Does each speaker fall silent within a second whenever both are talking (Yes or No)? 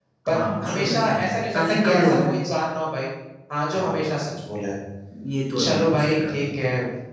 No